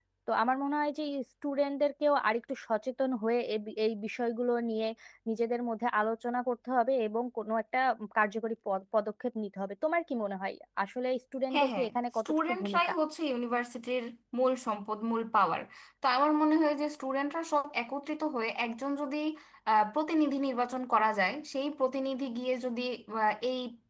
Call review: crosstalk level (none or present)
present